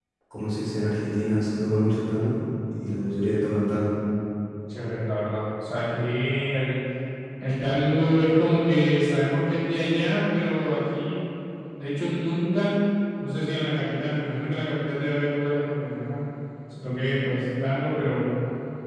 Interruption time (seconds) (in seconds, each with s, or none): none